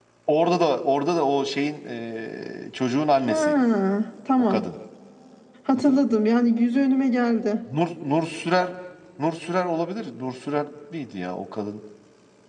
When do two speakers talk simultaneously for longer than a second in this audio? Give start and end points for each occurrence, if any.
none

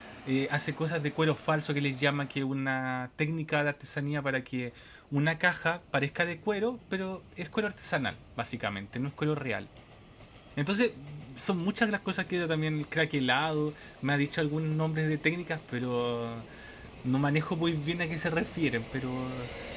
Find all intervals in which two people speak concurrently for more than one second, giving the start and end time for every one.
none

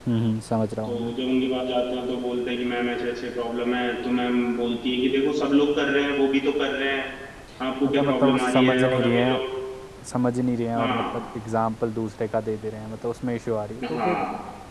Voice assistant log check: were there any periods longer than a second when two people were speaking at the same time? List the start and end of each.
7.9-9.4

